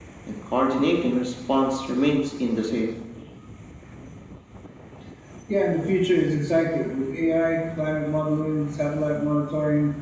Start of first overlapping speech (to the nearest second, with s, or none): none